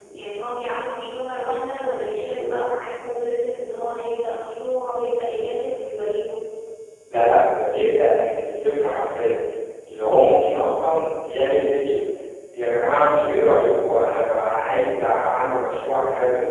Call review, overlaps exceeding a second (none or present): none